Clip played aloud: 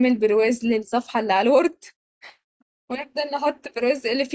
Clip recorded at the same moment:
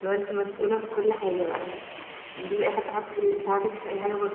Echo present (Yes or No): No